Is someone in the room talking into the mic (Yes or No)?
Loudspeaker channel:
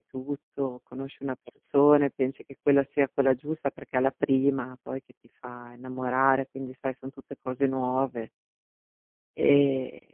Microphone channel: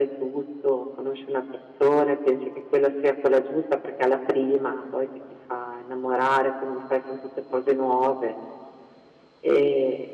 No